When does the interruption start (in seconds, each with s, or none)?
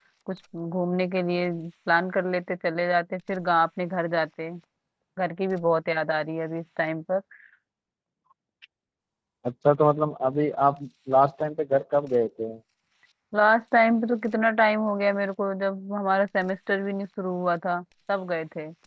none